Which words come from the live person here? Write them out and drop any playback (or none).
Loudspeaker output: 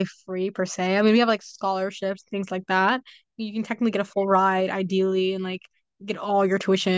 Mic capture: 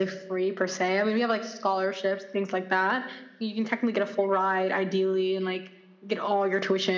none